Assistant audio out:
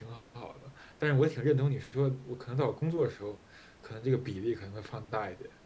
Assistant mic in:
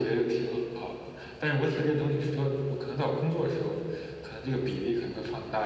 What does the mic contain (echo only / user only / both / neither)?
echo only